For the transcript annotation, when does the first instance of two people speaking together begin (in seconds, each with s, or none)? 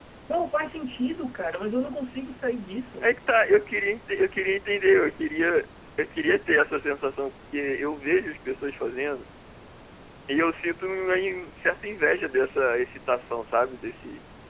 none